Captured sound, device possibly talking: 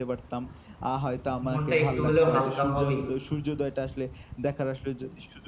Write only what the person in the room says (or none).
মনটা একটু হলেও হালকা হবেই।